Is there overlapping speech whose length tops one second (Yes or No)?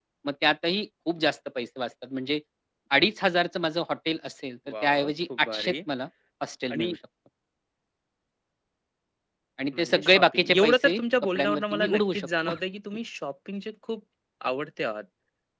Yes